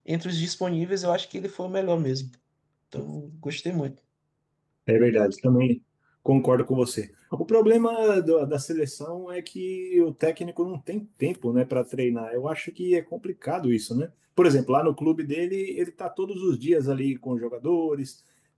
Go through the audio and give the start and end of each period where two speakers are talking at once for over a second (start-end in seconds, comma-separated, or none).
none